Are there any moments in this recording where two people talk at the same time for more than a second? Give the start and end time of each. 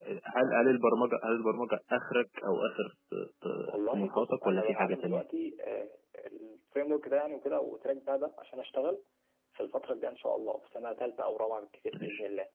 3.7-5.2

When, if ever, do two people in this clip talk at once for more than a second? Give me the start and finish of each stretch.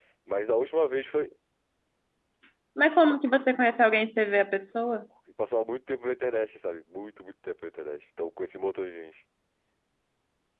none

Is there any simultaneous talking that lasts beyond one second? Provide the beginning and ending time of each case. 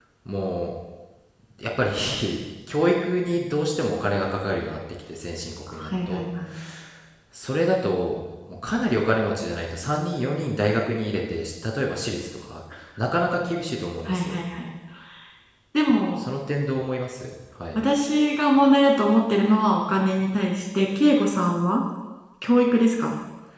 none

